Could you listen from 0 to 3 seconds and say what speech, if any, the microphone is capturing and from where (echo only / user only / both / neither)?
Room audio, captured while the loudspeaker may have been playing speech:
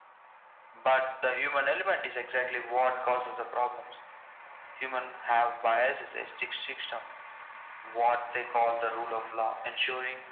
echo only